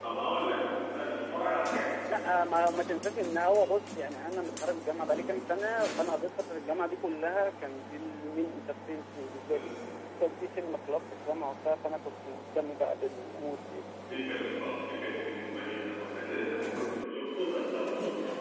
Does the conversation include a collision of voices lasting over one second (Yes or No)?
No